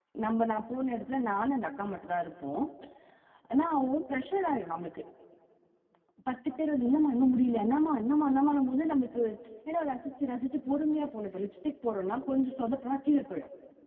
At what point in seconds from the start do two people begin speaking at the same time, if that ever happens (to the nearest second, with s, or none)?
none